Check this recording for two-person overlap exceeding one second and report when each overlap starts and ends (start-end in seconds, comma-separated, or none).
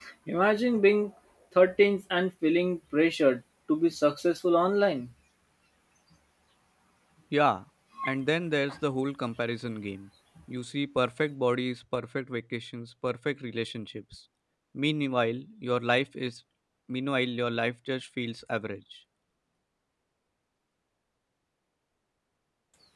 none